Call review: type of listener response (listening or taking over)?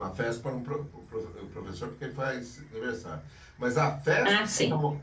listening